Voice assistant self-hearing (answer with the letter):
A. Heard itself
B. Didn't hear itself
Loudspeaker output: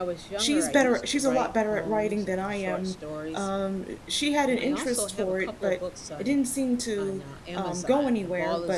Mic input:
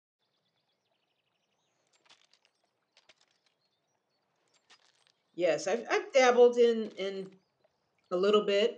B